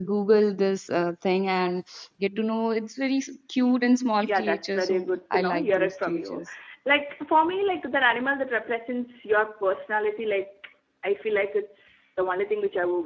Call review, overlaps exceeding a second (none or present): present